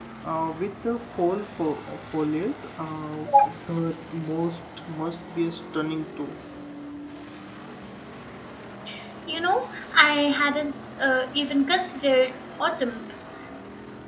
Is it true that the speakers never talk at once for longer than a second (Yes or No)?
Yes